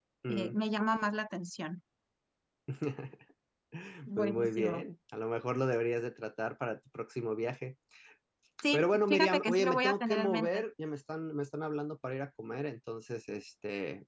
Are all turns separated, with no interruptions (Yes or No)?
No